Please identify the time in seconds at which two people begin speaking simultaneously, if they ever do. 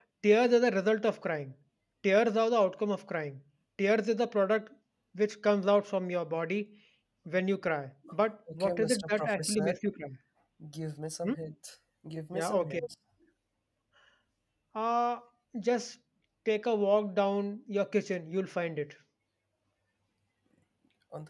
8.5 s

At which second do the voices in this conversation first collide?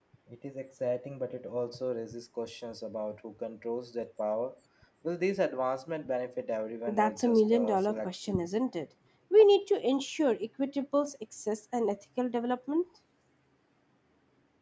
6.9 s

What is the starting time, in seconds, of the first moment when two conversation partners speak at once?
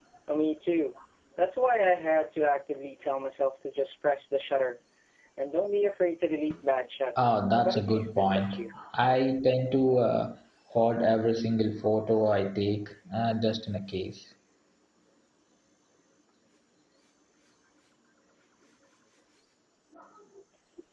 7.2 s

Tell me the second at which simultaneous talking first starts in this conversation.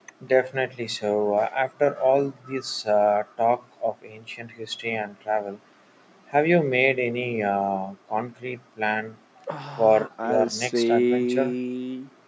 9.8 s

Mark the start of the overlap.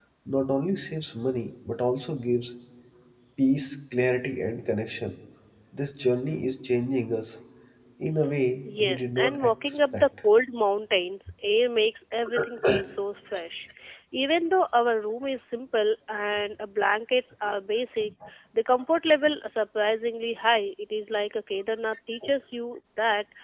8.8 s

